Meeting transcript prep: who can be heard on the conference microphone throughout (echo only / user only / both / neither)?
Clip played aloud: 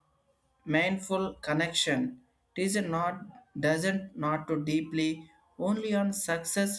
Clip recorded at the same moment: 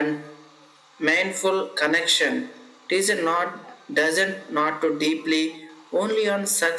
echo only